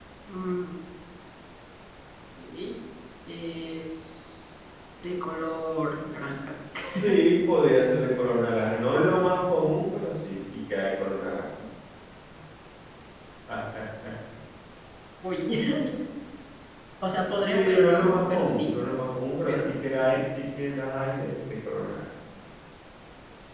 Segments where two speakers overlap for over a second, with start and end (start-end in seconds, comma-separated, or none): 17.5-18.8